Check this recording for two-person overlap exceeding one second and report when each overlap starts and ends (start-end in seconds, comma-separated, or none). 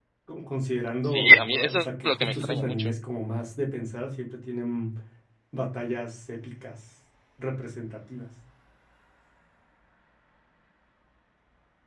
1.0-2.9